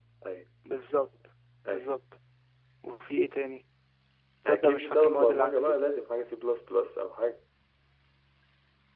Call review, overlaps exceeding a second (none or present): present